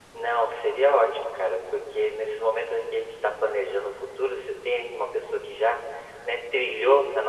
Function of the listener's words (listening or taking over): listening